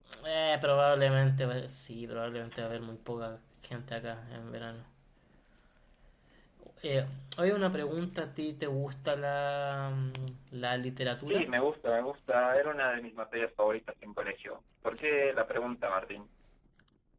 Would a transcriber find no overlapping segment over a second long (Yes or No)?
Yes